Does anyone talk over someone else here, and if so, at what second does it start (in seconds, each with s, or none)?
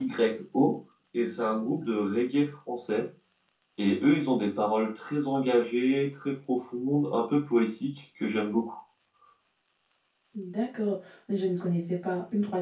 none